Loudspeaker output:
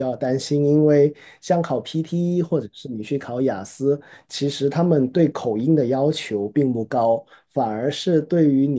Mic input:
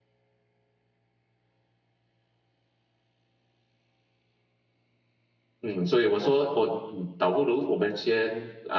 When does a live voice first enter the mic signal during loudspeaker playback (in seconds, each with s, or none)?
5.6 s